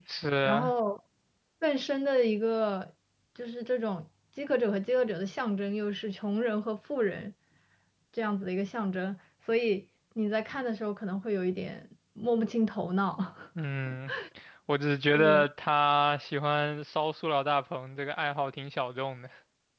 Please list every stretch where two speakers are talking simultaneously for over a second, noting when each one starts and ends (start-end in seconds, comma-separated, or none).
none